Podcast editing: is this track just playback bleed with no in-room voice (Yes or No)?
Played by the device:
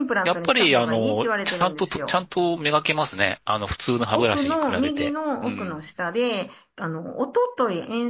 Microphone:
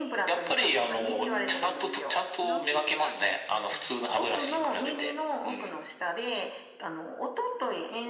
No